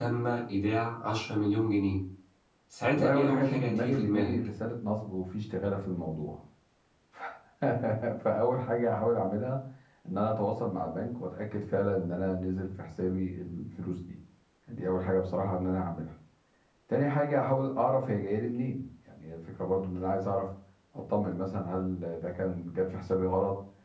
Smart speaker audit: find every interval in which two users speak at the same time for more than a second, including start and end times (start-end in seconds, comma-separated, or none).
2.9-4.4